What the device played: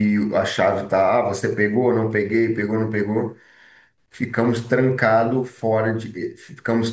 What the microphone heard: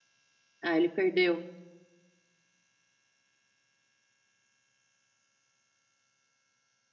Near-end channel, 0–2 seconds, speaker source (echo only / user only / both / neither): user only